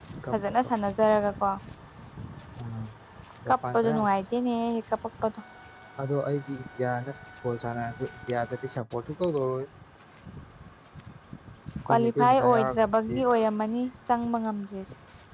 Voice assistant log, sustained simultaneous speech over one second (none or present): present